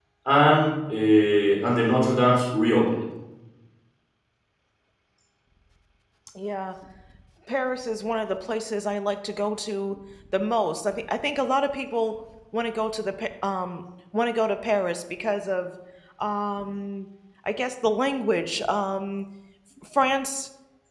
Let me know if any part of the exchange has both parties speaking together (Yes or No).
No